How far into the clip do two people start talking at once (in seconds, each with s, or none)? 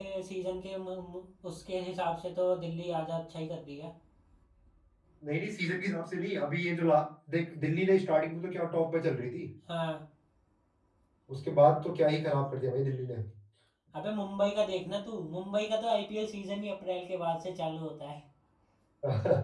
none